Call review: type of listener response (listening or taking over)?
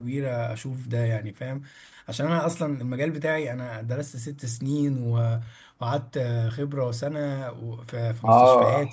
taking over